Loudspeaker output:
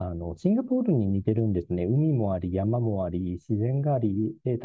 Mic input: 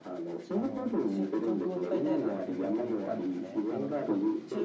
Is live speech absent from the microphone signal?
No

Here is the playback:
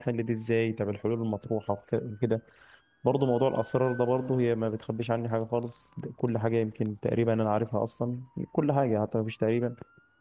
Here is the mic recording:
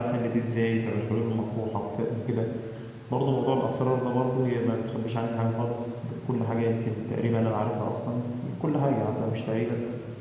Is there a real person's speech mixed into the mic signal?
No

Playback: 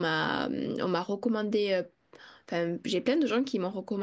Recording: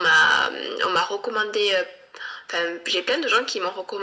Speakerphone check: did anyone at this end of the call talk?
No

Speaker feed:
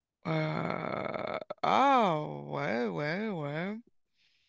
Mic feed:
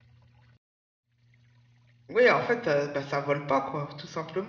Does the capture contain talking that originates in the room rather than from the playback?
Yes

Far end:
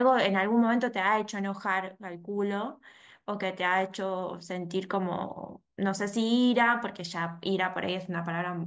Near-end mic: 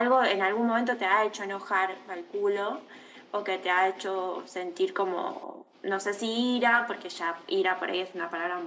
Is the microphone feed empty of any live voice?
Yes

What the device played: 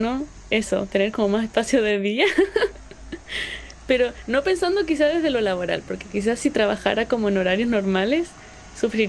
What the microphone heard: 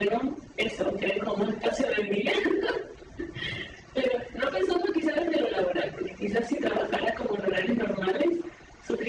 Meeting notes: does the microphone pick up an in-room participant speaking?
No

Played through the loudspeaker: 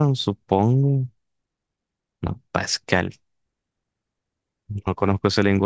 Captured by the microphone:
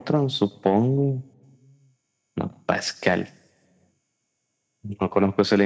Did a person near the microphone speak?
No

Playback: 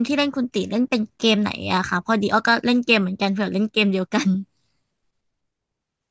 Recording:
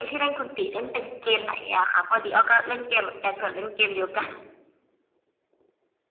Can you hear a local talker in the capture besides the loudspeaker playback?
No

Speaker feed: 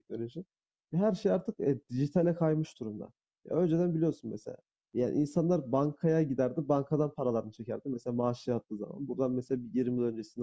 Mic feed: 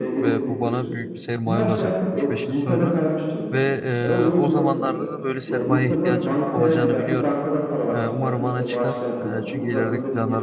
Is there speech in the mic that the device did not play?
Yes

